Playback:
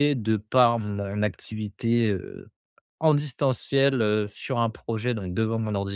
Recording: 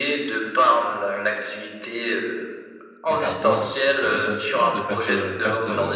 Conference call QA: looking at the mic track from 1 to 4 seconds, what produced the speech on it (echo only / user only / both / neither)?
both